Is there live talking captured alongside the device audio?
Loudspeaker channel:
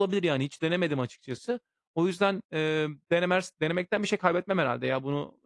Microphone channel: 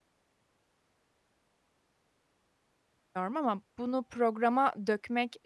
Yes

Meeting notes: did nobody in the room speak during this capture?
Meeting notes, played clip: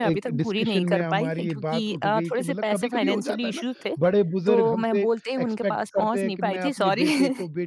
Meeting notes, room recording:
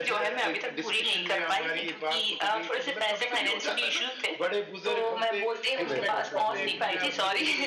No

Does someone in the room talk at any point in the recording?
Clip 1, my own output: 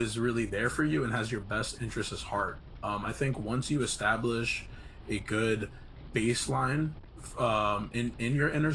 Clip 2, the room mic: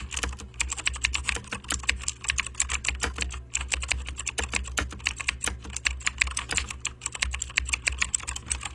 No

